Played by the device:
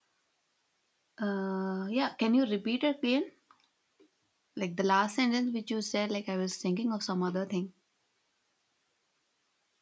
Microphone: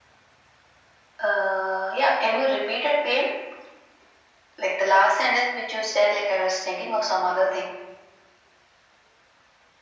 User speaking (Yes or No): No